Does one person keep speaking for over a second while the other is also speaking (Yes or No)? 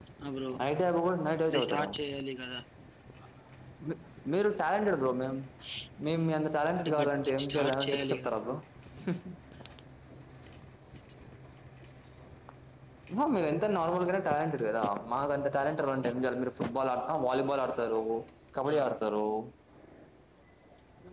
Yes